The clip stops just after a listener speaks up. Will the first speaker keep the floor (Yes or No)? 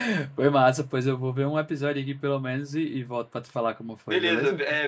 No